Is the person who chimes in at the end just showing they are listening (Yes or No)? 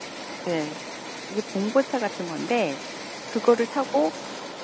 Yes